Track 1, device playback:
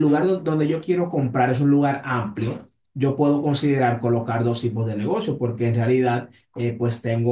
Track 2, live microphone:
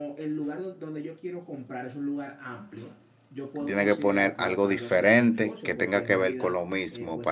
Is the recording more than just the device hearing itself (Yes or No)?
Yes